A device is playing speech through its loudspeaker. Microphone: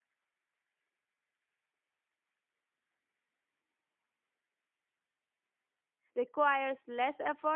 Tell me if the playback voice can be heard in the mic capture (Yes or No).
No